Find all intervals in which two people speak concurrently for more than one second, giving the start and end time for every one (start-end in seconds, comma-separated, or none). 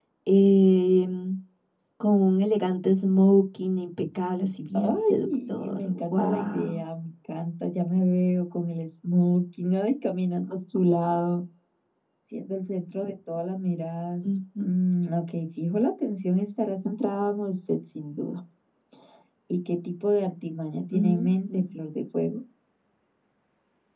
4.7-6.8